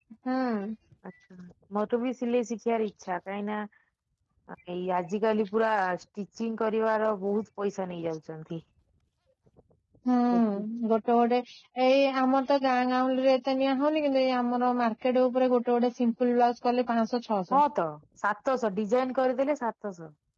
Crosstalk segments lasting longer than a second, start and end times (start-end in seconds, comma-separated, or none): none